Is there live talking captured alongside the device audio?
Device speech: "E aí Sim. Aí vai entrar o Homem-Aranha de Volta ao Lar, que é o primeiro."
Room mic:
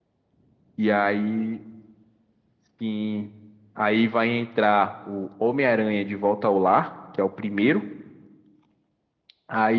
No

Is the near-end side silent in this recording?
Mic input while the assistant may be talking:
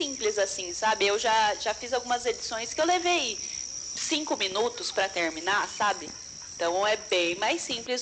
Yes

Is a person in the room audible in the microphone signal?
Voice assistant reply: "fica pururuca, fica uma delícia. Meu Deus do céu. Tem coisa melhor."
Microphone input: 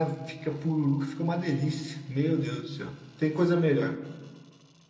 No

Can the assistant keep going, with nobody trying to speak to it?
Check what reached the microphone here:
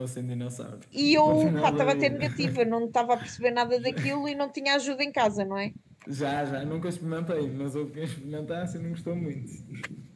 No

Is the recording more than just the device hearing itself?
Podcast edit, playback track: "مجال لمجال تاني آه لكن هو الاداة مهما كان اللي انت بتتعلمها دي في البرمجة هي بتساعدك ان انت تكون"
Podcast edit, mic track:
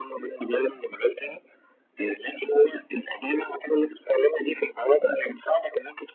No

